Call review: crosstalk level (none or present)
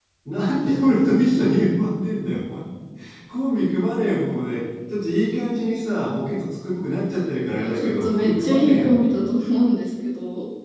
present